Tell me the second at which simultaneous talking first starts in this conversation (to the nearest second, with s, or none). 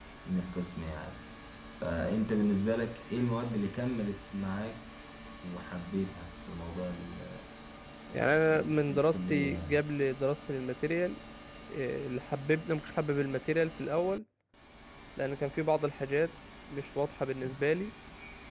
8 s